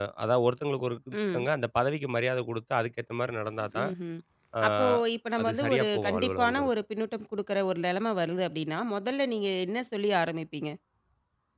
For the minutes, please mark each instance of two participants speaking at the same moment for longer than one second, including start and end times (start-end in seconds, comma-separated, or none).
5.4-6.7